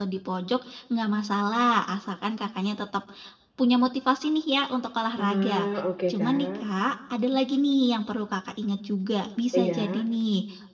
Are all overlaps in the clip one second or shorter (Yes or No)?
Yes